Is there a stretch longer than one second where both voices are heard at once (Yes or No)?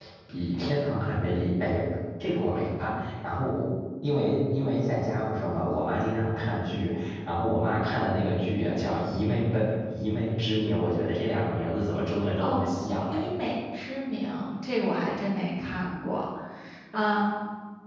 No